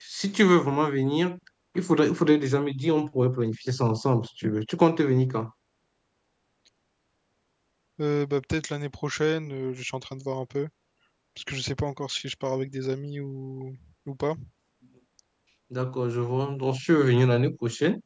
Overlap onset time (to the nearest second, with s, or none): none